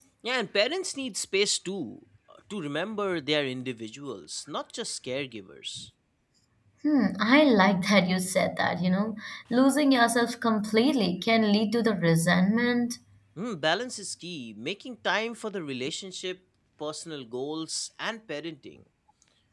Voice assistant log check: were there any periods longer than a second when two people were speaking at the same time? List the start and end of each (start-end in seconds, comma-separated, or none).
none